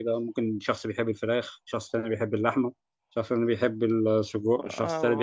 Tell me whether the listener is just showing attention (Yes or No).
No